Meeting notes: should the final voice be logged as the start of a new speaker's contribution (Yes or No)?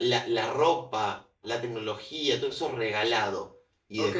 Yes